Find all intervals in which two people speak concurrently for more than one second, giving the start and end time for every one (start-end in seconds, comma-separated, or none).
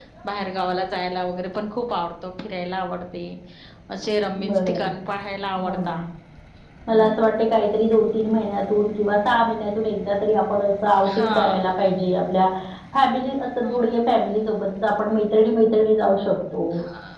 none